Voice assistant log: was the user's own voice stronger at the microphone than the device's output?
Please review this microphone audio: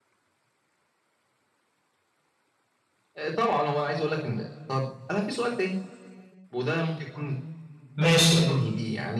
Yes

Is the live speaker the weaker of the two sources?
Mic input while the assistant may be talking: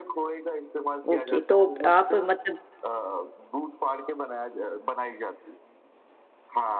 No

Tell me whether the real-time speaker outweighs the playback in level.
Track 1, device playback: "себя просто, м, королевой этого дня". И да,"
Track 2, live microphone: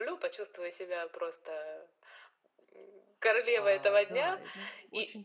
No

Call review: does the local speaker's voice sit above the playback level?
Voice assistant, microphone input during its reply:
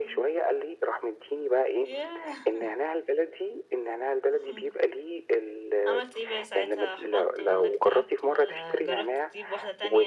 No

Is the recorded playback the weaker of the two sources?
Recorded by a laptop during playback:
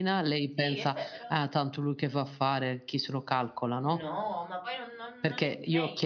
No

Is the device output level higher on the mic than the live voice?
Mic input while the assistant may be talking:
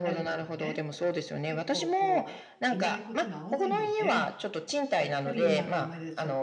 Yes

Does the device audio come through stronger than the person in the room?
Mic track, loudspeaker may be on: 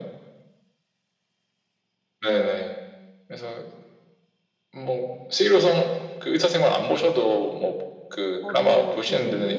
Yes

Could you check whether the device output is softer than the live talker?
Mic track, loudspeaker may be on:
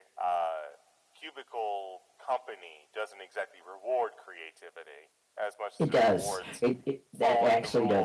Yes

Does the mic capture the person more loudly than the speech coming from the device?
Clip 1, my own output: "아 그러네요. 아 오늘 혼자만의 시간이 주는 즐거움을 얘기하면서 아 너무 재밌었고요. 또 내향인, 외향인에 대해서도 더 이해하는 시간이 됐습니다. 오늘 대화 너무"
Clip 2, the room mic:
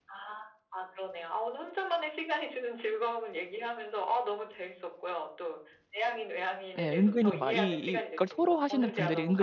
Yes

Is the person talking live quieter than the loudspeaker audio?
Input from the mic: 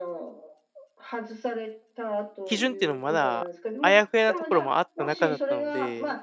No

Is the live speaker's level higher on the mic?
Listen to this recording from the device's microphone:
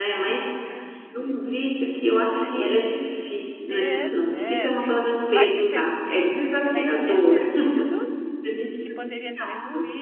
Yes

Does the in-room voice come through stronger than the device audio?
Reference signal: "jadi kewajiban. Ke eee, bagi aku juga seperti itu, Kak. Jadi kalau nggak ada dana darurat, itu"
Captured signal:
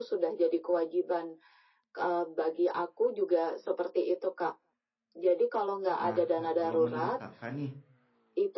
No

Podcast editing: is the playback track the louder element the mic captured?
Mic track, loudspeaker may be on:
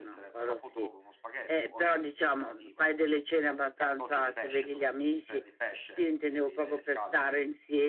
Yes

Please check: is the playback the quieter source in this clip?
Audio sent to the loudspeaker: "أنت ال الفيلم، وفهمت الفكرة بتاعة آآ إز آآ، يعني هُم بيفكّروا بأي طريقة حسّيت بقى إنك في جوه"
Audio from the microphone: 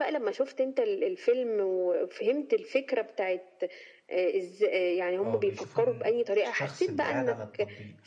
No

